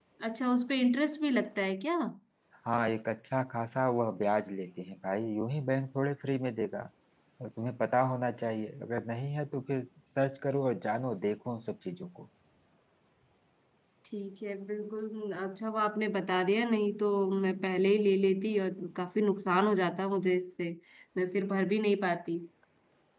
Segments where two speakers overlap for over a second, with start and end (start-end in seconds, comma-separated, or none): none